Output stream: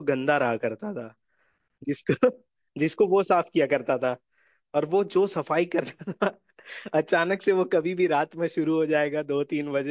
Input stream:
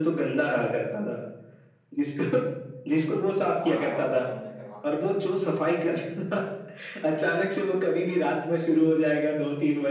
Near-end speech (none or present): present